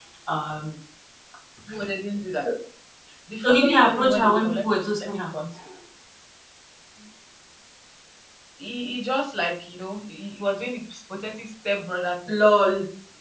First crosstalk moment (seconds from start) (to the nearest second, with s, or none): 3 s